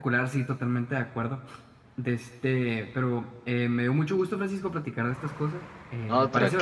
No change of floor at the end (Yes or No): Yes